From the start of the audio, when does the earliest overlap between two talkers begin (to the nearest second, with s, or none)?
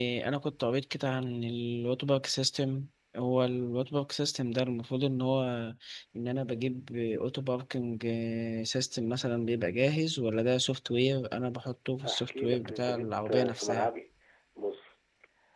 12 s